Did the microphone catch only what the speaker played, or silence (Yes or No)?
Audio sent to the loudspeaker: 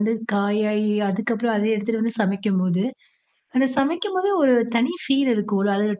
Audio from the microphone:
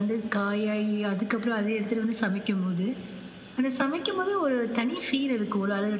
Yes